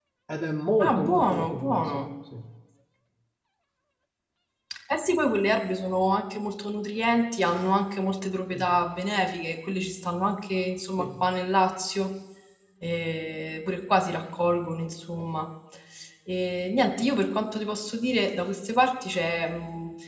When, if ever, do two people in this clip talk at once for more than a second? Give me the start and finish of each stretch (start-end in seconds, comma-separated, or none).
0.8-2.1